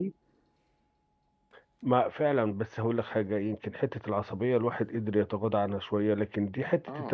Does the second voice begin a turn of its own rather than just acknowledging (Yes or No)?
No